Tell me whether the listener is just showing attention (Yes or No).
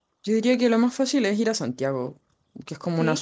Yes